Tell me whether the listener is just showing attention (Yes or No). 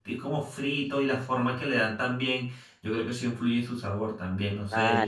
No